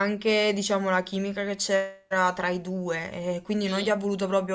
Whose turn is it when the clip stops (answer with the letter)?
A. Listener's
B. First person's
B